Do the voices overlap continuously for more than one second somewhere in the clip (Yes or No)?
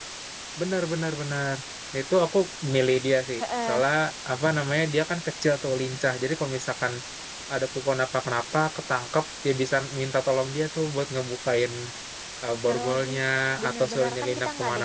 Yes